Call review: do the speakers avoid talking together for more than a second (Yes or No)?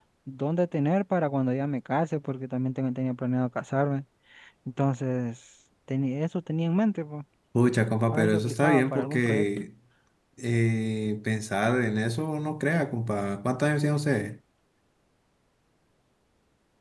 No